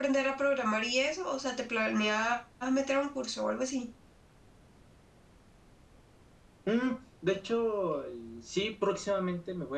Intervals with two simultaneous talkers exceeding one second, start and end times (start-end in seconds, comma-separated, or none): none